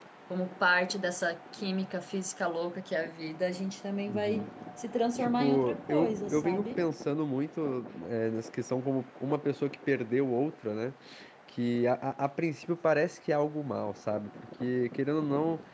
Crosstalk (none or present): present